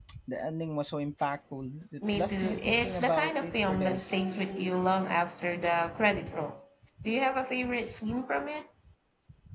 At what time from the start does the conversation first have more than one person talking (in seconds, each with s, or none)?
2.1 s